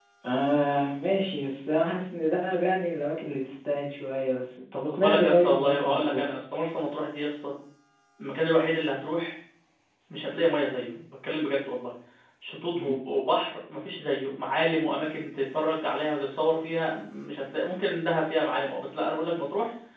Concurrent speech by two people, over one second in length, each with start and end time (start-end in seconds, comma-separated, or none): 4.9-6.2